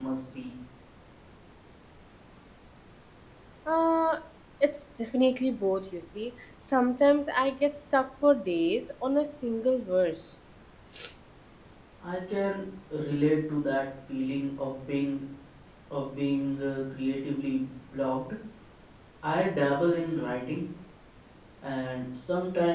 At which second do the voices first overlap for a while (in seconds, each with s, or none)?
none